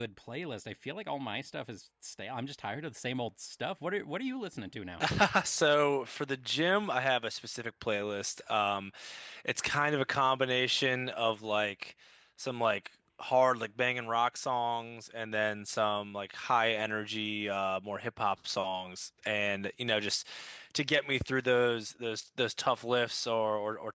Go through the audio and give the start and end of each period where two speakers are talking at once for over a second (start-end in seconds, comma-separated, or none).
none